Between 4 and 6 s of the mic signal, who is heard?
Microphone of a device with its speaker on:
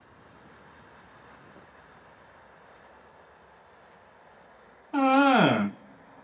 user only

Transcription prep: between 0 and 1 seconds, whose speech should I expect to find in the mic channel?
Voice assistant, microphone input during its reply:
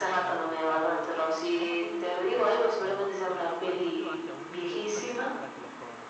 both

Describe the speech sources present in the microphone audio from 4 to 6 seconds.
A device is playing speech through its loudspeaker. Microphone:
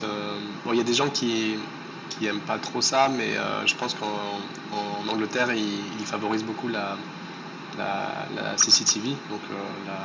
echo only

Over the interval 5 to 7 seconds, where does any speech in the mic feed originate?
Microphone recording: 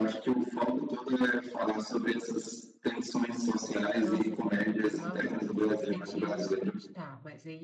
both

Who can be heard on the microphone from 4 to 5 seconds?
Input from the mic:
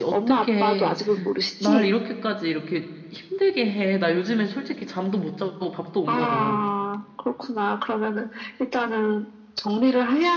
user only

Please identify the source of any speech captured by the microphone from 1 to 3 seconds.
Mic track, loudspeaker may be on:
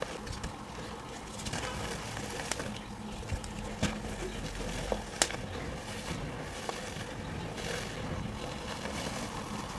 neither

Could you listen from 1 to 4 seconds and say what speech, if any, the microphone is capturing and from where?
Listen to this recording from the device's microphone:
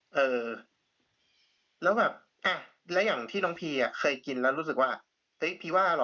echo only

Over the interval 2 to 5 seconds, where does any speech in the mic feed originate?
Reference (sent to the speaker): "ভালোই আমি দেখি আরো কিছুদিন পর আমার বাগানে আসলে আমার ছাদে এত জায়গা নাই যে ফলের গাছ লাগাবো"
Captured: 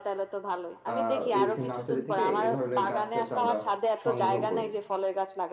both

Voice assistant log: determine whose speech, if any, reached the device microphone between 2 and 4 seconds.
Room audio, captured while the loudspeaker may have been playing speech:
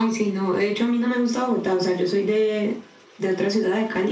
echo only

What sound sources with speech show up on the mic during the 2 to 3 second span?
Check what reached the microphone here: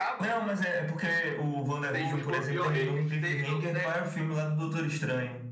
both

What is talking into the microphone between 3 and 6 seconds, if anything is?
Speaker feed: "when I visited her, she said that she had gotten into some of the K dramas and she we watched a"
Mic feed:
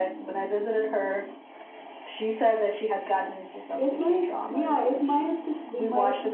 both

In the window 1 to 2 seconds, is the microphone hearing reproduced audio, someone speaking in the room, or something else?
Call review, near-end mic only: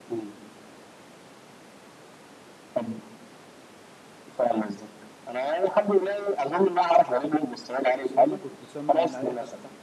neither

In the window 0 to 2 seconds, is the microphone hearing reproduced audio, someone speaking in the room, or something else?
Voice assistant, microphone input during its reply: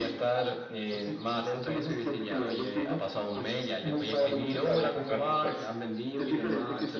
echo only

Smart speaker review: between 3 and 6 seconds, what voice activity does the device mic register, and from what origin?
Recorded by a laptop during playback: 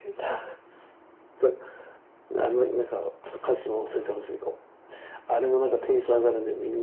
echo only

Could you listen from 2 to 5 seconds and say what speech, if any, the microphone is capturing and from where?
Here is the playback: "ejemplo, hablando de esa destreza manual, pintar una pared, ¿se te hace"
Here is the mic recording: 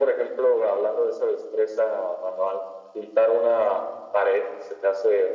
echo only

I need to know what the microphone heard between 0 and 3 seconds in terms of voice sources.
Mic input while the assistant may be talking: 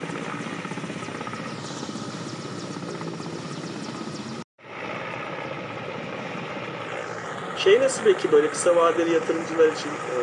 neither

